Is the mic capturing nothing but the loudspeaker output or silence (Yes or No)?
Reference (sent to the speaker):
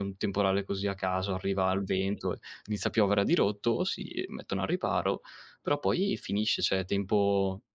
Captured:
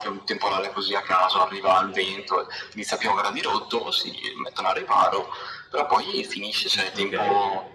No